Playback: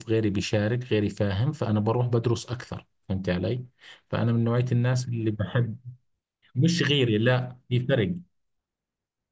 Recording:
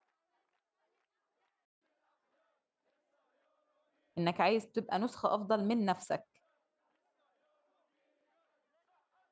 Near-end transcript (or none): انك عايز تبقى نسخة افضل من نفسك